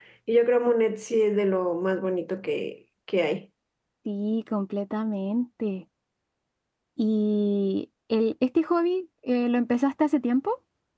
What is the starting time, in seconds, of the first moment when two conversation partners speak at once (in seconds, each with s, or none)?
none